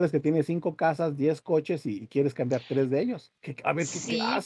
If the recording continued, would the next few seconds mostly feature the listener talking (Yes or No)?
Yes